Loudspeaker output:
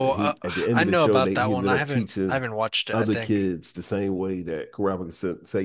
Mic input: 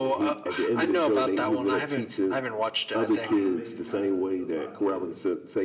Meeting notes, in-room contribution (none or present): present